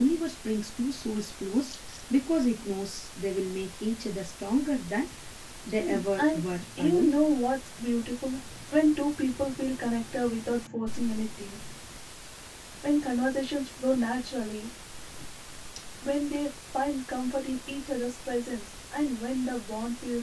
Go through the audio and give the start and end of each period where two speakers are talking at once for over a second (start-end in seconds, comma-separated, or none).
5.8-7.1